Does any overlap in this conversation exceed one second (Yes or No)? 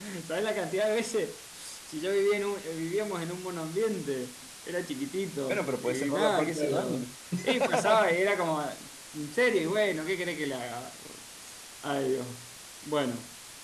Yes